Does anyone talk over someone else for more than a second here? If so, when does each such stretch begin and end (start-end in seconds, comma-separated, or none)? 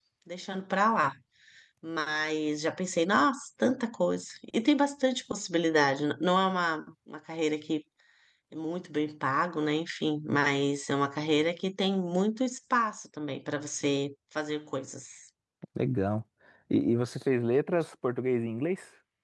none